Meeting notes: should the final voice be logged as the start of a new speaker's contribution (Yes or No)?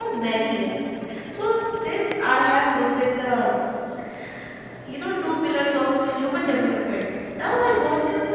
No